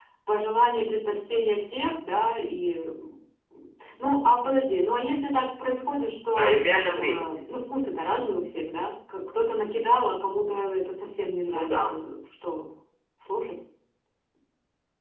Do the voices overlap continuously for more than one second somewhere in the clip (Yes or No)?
No